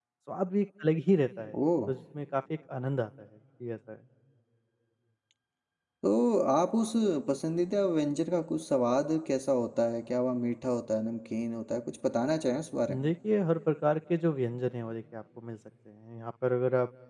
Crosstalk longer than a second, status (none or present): none